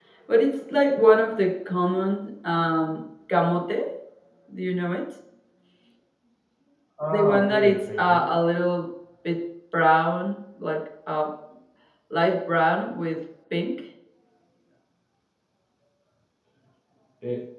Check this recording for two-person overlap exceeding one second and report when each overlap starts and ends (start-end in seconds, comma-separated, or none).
7.1-8.3